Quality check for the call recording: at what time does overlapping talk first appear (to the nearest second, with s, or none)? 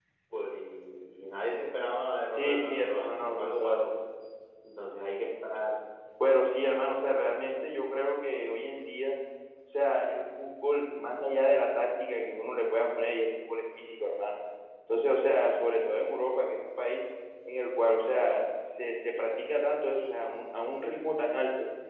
2 s